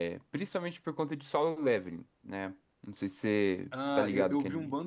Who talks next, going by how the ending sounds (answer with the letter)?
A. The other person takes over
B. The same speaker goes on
A